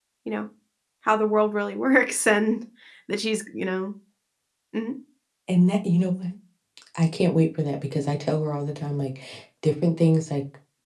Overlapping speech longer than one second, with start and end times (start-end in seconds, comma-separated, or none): none